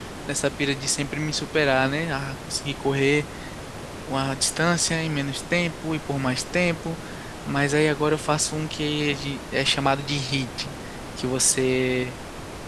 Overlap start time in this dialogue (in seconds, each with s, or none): none